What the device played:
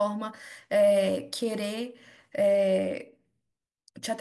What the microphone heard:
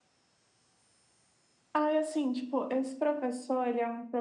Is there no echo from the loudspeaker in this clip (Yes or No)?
Yes